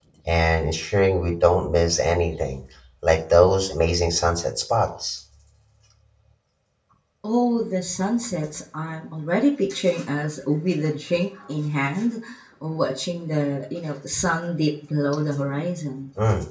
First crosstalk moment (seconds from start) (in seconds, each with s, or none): none